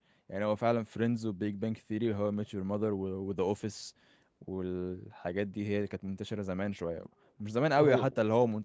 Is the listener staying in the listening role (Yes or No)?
Yes